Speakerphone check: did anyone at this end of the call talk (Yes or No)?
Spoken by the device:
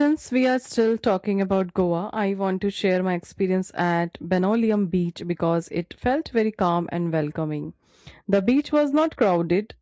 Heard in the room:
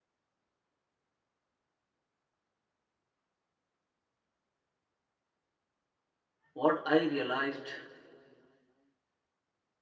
Yes